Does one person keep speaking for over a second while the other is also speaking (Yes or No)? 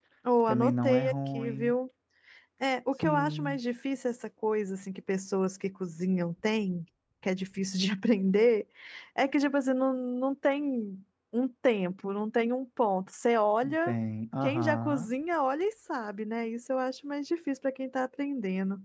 Yes